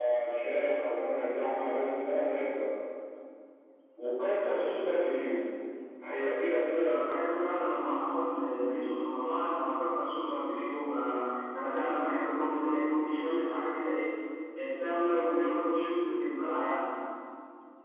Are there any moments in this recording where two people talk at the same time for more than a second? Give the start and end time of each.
none

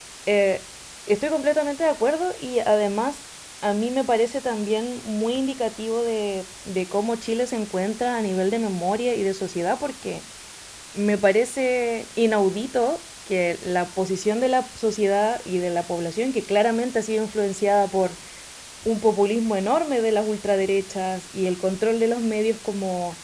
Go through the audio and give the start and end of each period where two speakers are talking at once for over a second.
none

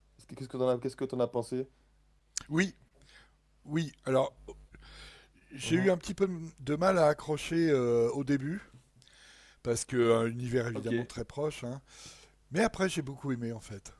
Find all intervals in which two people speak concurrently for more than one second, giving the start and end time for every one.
none

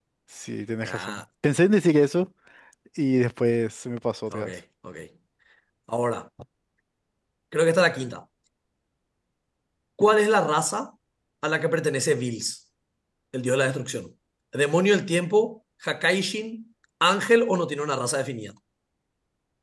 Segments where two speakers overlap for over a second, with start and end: none

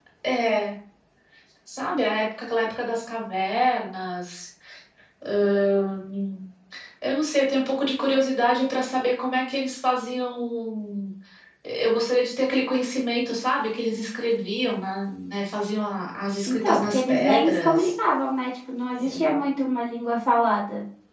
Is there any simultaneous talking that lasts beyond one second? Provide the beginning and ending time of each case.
16.5-17.9

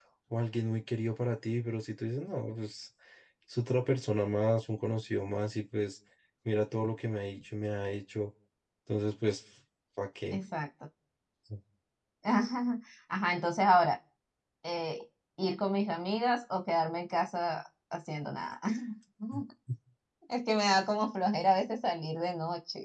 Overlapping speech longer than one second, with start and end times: none

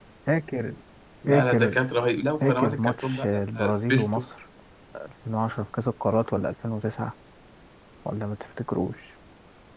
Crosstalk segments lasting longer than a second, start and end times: 2.4-4.2

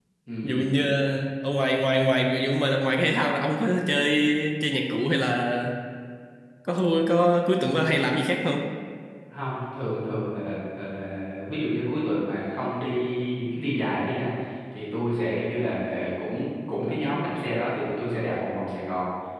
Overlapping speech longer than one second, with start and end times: none

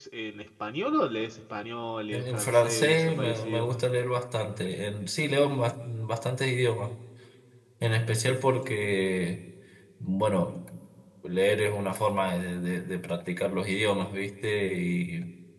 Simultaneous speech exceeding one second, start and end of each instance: 2.1-3.8

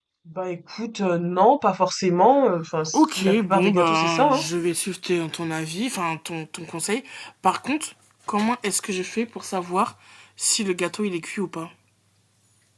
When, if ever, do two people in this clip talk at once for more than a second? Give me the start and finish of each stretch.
2.9-4.5

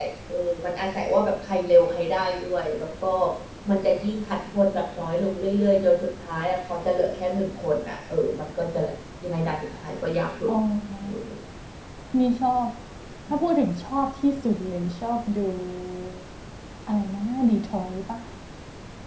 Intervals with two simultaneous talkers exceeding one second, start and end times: none

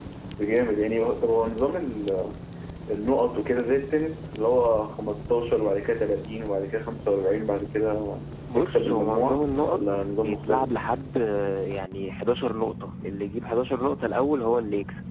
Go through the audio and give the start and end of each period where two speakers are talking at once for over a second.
8.5-10.8

